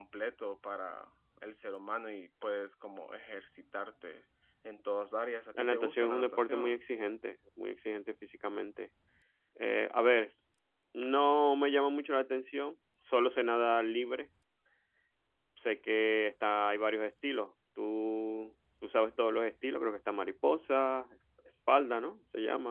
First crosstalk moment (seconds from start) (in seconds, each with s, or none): 5.5 s